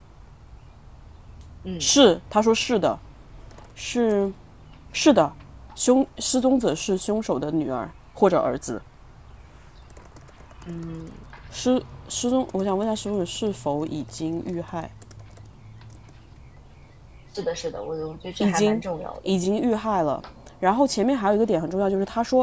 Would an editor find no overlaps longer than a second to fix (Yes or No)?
Yes